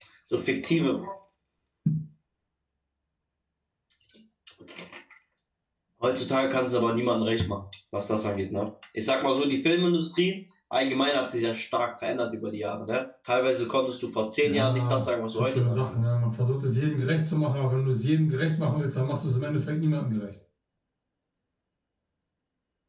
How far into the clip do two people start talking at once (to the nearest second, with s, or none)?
14 s